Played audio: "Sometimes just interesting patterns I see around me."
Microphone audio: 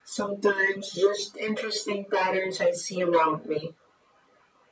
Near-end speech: none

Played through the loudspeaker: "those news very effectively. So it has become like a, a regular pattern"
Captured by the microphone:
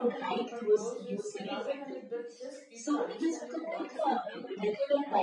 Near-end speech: present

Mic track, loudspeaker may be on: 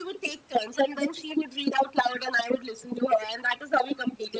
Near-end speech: none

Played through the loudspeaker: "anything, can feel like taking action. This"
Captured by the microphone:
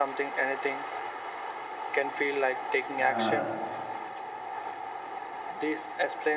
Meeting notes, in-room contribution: present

